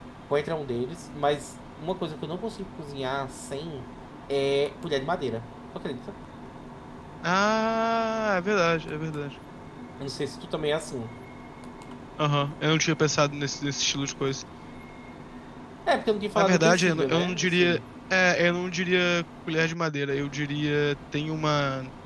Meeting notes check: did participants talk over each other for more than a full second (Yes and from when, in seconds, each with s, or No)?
Yes, from 16.4 s